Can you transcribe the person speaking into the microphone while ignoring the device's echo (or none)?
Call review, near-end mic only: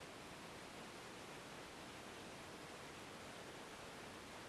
none